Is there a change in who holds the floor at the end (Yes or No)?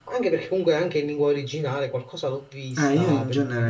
Yes